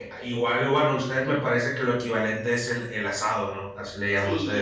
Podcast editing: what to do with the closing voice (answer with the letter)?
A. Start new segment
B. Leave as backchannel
A